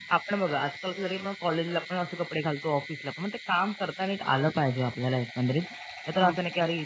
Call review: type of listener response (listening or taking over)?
listening